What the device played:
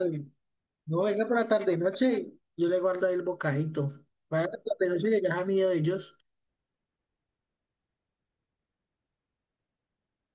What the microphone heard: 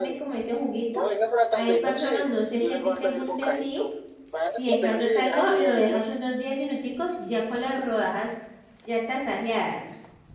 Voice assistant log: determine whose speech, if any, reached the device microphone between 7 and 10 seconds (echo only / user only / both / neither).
user only